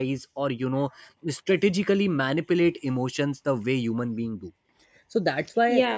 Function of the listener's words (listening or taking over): listening